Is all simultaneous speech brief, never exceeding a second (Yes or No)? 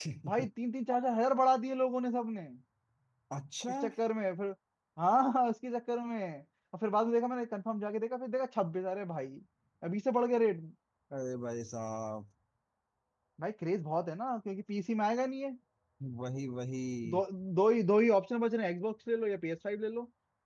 Yes